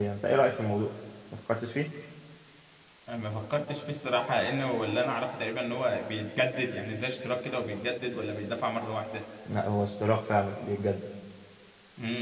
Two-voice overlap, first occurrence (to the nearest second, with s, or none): none